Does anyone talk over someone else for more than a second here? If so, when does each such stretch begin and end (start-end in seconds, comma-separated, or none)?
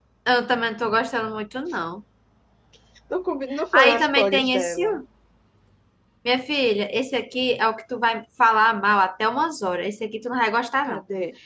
3.7-5.0